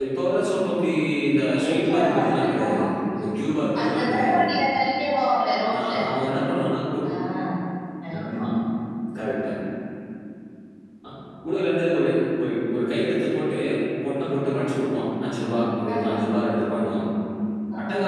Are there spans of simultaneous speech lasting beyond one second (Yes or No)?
Yes